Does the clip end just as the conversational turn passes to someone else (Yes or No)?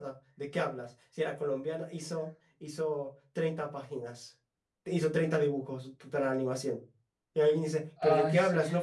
No